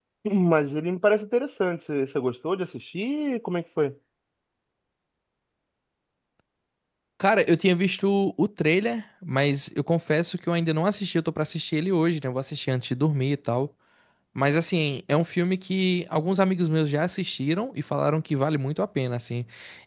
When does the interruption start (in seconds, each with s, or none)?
none